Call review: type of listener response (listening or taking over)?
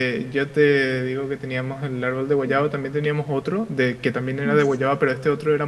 listening